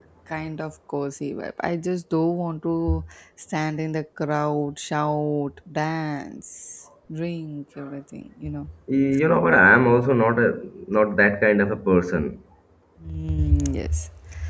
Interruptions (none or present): none